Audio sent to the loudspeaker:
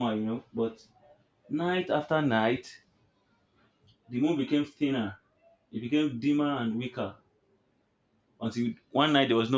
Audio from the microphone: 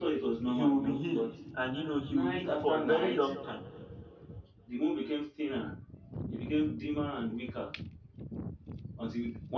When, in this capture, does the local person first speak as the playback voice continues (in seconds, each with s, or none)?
0.5 s